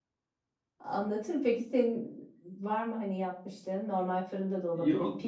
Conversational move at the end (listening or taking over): taking over